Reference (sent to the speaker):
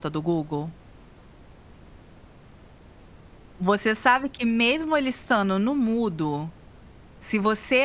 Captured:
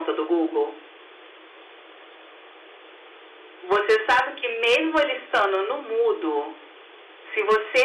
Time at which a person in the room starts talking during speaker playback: none

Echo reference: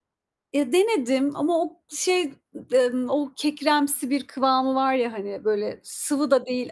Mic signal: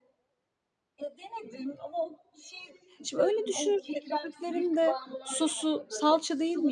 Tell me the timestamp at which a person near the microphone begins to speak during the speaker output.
3.0 s

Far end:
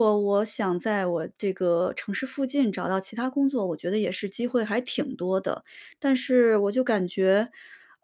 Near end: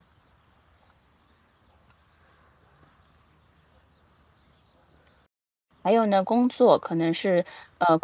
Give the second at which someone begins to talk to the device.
5.8 s

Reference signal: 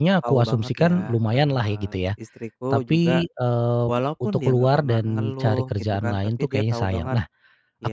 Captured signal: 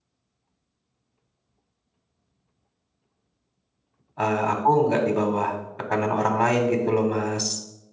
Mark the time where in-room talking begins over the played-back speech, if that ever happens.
4.2 s

